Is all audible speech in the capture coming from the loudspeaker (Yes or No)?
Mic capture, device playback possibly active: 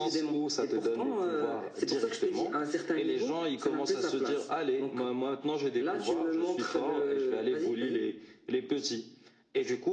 Yes